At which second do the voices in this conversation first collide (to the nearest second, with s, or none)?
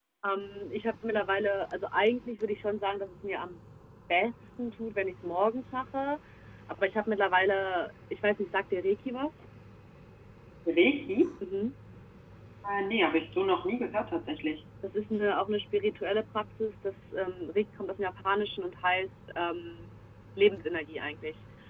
none